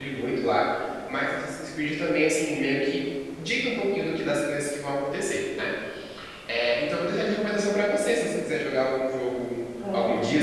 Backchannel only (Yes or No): Yes